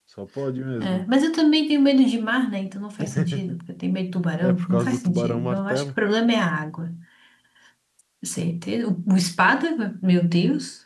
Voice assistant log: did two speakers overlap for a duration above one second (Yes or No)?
Yes